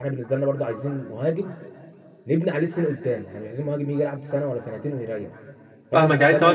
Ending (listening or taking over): taking over